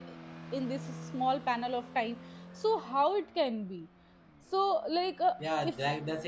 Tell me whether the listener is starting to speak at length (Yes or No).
Yes